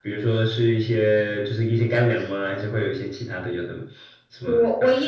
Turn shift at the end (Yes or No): Yes